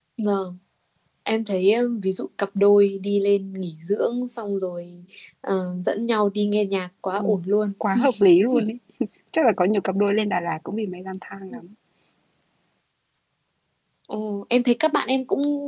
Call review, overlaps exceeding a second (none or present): none